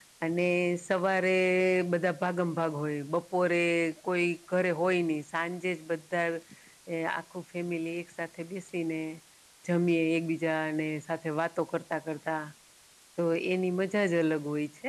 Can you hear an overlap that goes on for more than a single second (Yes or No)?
No